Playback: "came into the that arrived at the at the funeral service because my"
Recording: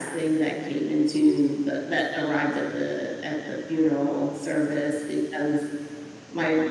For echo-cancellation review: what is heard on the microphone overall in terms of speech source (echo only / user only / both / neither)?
echo only